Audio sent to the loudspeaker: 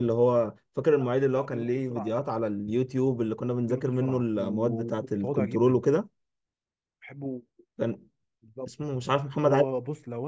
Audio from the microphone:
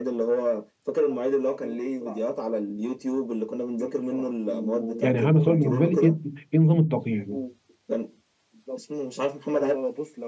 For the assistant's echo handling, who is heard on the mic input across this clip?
both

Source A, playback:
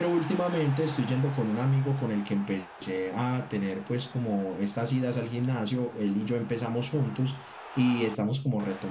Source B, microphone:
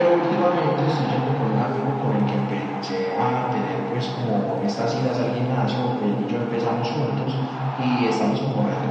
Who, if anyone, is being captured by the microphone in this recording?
echo only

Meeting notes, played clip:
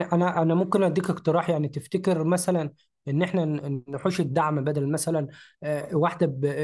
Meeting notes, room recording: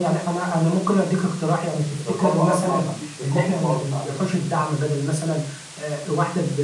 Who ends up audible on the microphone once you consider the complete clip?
both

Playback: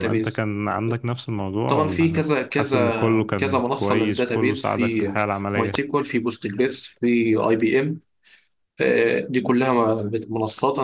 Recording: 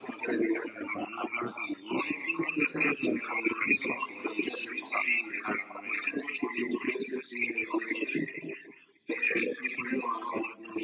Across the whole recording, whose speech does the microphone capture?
echo only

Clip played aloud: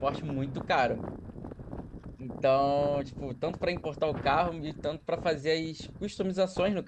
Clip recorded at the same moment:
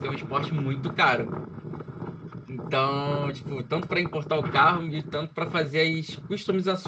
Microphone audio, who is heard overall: echo only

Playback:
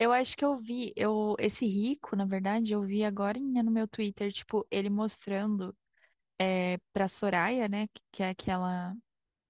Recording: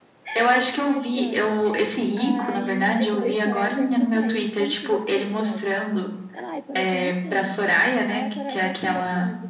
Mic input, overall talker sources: both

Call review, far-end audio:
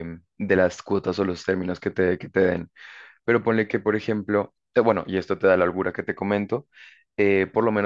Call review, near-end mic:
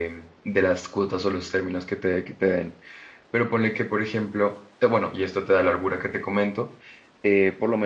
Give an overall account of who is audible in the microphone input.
echo only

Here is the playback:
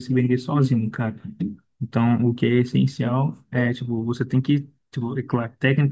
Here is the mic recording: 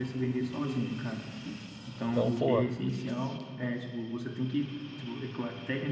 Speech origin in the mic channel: both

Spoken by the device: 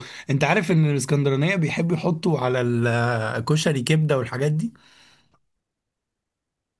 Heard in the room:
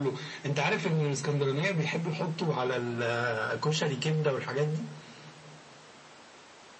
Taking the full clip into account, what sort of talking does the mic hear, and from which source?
echo only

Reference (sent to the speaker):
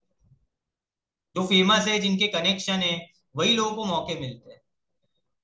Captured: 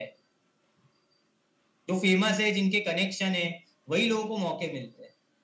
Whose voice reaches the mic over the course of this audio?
echo only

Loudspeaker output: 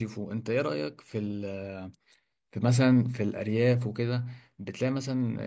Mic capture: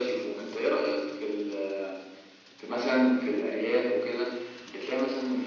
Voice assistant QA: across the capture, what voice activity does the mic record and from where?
echo only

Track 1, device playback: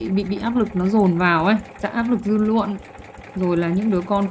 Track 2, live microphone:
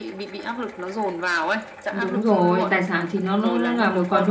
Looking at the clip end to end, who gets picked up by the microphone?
both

